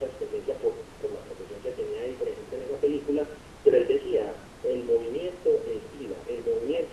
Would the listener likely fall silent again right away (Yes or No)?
Yes